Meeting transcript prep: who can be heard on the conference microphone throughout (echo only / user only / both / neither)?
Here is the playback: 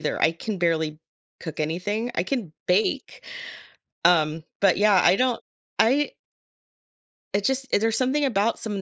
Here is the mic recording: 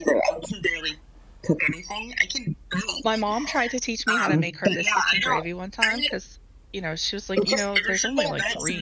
both